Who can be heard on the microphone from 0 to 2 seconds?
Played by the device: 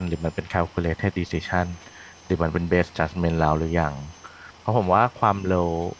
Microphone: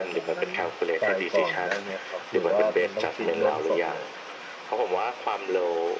both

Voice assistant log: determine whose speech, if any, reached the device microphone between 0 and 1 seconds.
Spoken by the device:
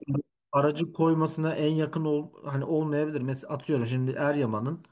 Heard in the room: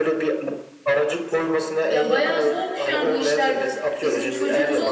echo only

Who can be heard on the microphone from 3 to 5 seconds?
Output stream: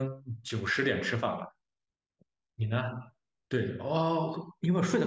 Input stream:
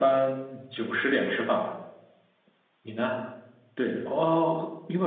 echo only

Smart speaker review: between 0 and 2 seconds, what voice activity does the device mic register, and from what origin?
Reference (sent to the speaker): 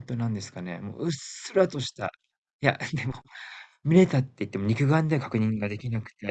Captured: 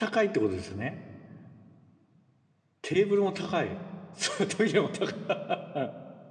user only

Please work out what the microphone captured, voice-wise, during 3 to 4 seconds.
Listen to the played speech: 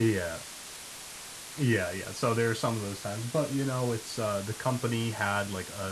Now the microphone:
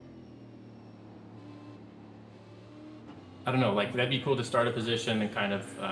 user only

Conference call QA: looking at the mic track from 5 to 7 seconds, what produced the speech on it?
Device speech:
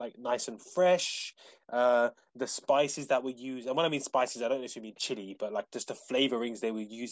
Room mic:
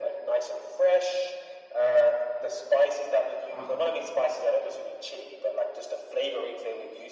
echo only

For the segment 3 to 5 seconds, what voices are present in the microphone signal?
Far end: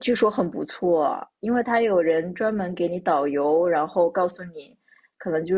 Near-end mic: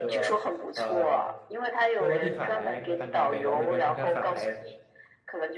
both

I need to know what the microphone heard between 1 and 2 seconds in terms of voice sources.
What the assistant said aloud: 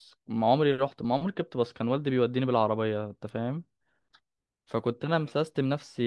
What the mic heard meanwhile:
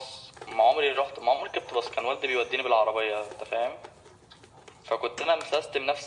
echo only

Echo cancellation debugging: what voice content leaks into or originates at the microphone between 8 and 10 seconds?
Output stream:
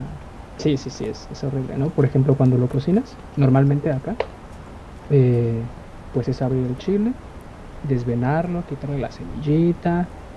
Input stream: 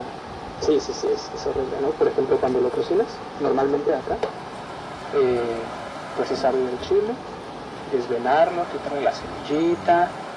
echo only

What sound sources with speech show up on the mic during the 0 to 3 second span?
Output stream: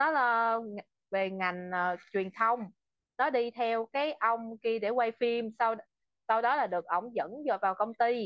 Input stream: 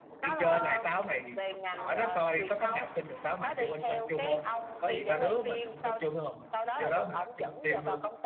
both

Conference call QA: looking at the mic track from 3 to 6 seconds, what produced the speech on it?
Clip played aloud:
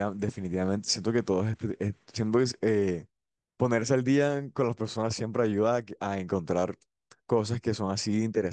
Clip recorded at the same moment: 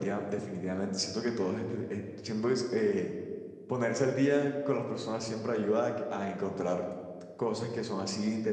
echo only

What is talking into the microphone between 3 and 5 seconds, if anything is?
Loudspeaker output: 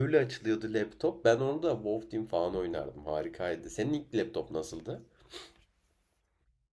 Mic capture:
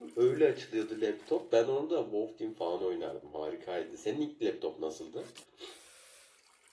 echo only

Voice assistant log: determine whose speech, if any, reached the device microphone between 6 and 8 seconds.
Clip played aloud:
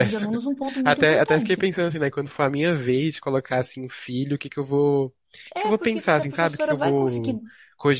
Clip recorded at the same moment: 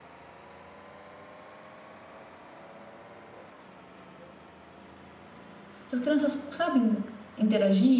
user only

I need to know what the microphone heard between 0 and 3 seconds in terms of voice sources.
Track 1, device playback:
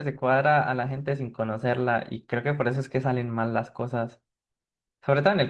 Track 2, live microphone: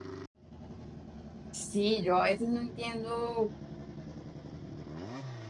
user only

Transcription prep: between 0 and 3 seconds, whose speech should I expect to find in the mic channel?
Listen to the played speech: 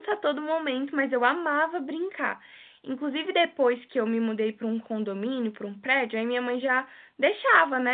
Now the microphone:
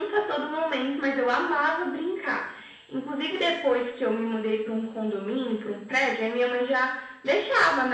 echo only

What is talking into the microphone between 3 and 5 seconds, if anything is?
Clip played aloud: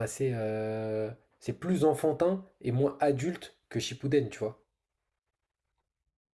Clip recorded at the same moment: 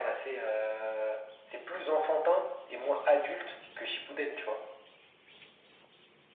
echo only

